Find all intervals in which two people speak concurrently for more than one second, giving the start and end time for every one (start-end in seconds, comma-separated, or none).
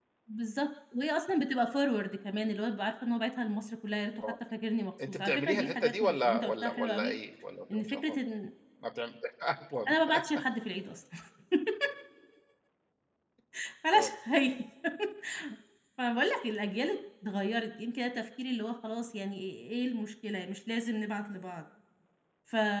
5.0-7.2